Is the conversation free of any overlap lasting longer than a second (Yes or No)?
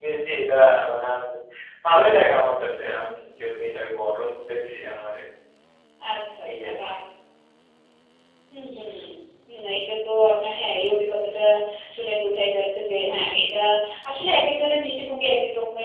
Yes